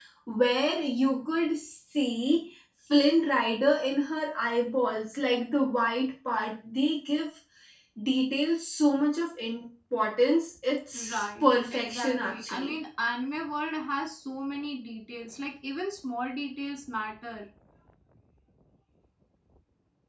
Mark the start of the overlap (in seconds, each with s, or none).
10.9 s